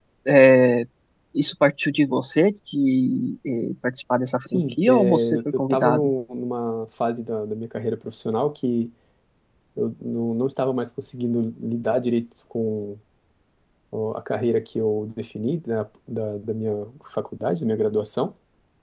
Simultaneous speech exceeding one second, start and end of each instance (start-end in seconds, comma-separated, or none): 4.4-6.1